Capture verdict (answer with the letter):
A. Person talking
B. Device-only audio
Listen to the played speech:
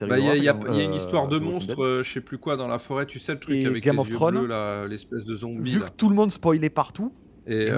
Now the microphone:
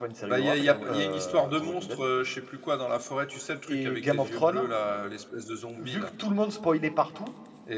B